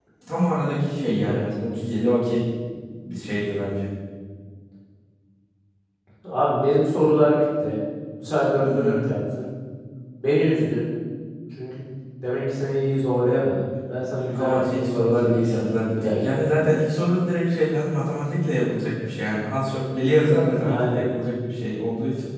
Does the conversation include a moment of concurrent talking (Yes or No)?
Yes